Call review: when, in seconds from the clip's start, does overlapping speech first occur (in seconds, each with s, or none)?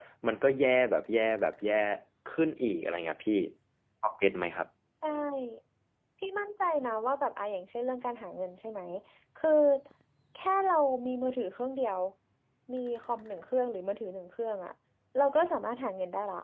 none